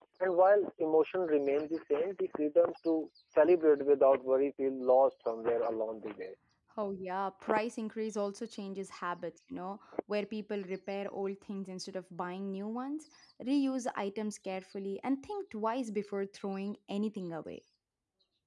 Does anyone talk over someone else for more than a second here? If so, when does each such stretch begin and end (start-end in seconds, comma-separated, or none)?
none